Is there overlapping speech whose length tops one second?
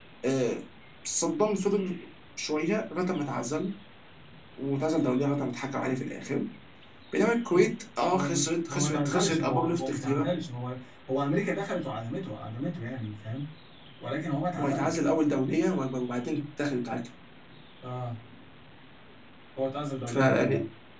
Yes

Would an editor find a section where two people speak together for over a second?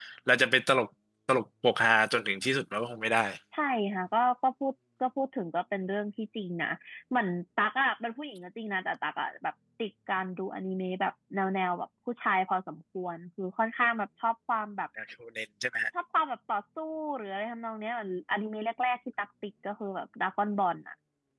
No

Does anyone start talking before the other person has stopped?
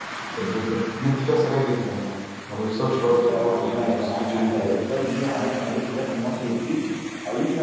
Yes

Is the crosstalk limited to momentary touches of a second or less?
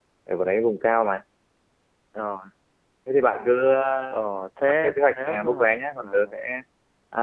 No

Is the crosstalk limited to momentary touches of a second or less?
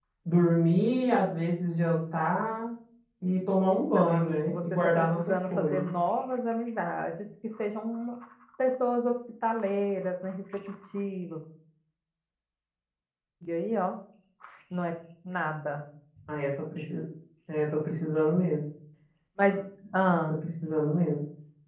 No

